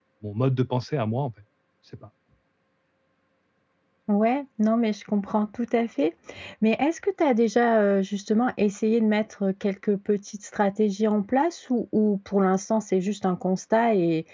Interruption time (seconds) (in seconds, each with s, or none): none